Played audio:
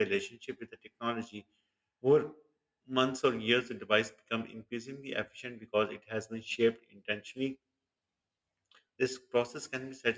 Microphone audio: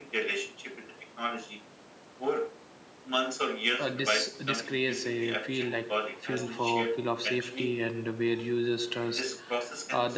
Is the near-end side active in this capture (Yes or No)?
Yes